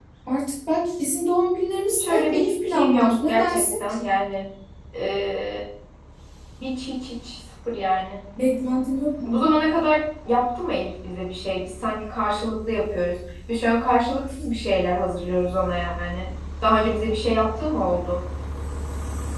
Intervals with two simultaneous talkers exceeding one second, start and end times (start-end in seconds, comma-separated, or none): 1.9-3.8